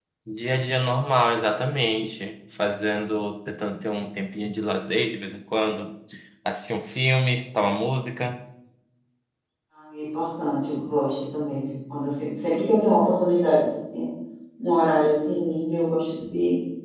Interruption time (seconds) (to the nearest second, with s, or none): none